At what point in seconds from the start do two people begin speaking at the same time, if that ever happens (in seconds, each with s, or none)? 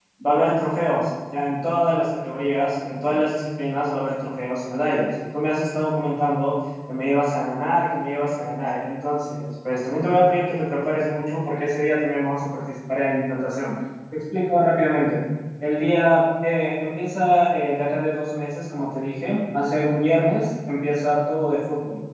none